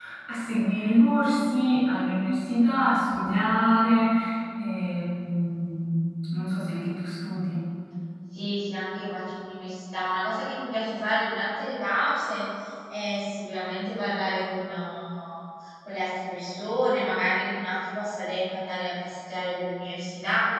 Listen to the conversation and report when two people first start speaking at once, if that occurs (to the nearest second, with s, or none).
none